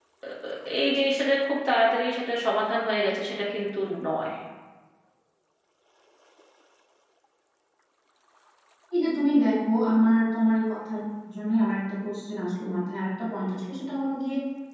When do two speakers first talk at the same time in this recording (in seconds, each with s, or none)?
none